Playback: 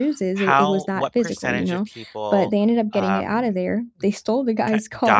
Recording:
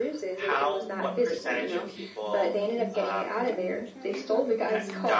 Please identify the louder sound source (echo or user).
echo